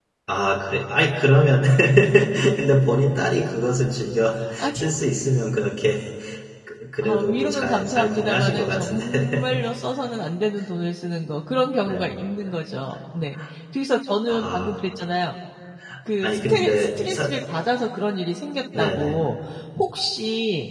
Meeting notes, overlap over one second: present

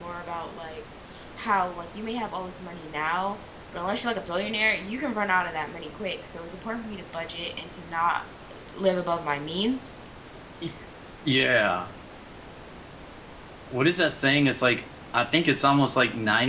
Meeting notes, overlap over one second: none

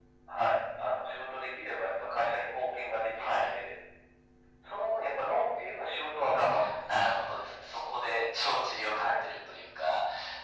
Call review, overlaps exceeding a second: none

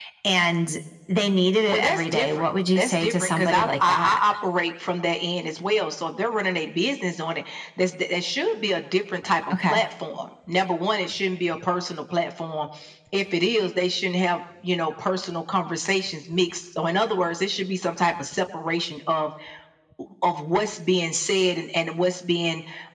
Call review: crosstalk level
present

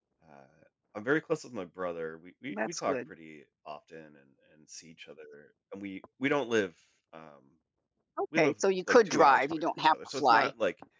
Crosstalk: present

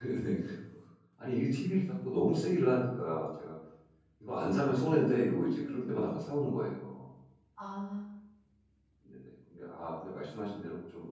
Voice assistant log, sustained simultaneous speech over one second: present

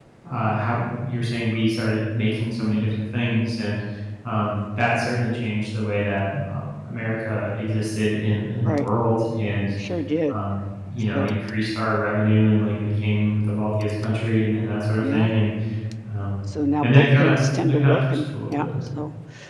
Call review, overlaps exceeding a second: present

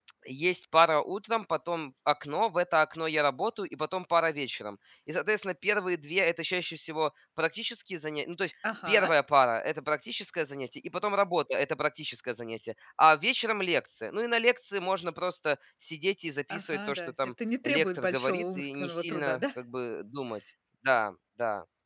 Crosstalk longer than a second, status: present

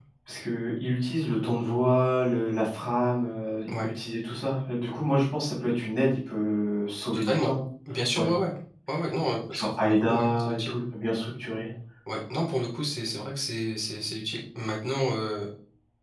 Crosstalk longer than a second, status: present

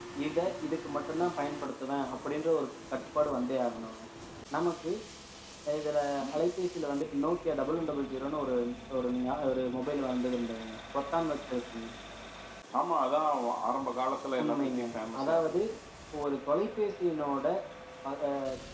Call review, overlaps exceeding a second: none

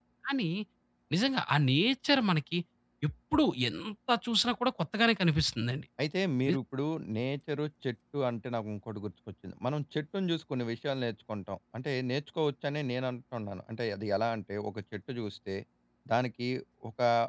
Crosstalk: none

